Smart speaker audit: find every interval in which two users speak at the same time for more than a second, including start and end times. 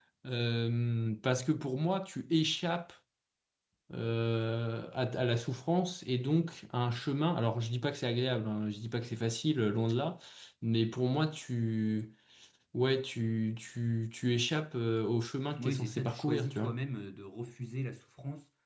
15.6-16.8

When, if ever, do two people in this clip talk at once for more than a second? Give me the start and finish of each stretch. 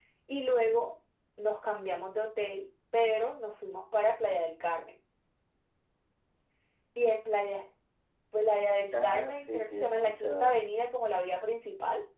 8.9-10.5

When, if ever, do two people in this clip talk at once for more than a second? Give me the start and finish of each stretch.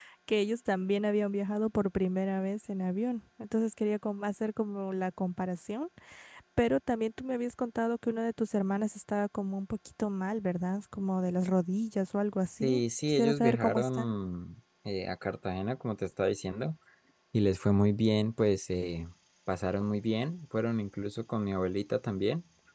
12.6-14.1

